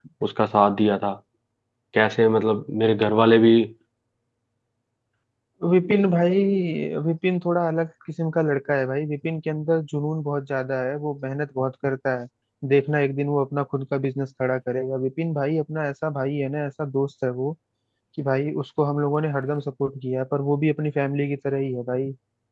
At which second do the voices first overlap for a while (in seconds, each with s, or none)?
none